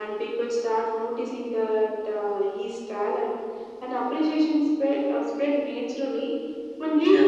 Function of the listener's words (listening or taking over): listening